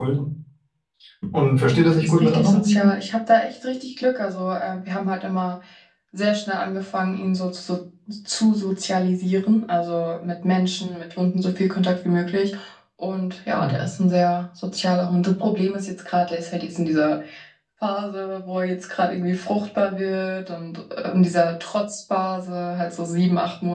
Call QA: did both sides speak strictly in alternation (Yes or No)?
No